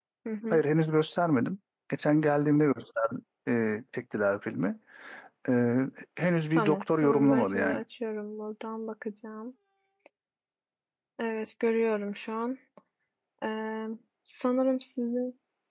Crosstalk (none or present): present